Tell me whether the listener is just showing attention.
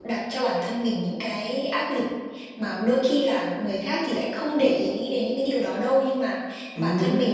Yes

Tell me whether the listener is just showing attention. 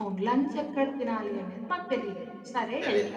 Yes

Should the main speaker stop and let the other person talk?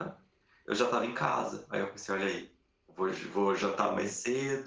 No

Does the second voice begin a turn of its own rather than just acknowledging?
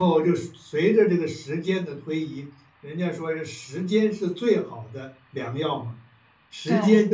No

